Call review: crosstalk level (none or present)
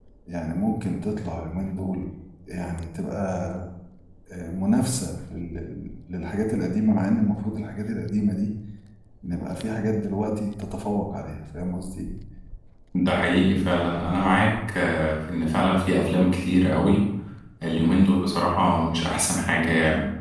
none